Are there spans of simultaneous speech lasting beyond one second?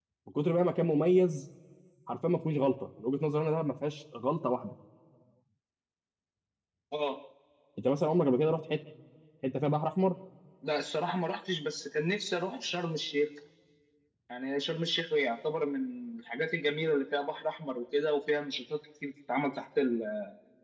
No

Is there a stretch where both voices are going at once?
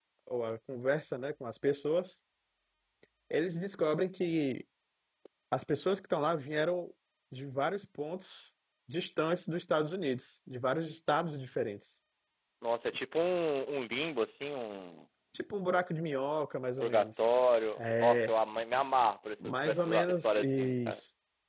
Yes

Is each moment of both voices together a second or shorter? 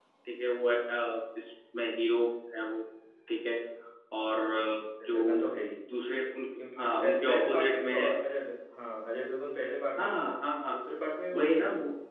No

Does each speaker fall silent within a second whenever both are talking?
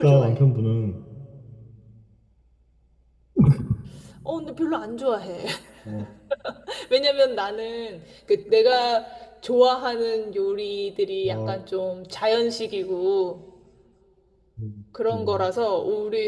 Yes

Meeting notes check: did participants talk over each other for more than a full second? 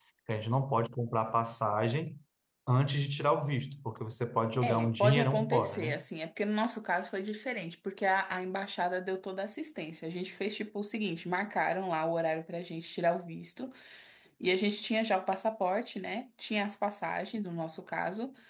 Yes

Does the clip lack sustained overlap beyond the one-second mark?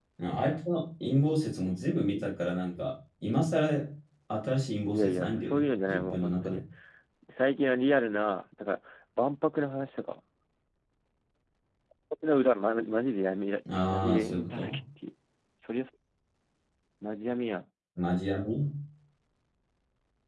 No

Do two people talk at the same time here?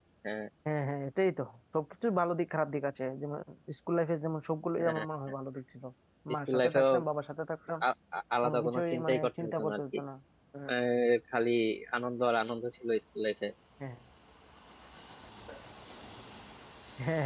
Yes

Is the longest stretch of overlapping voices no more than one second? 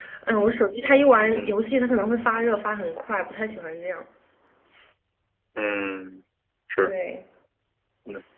Yes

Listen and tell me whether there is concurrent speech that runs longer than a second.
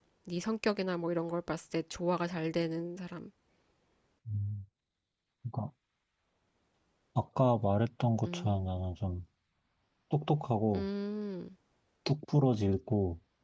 No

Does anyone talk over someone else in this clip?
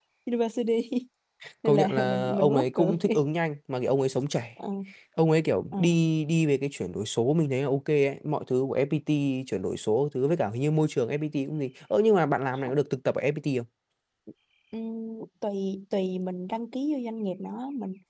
Yes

